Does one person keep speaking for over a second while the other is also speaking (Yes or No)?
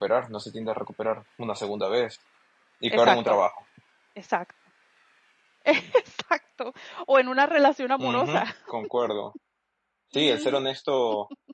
No